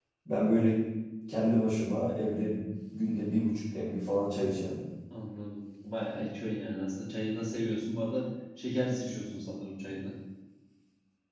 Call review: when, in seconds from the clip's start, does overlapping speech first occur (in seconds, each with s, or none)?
none